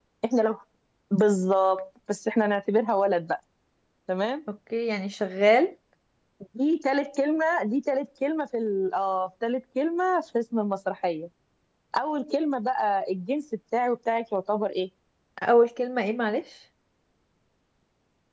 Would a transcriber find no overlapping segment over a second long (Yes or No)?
Yes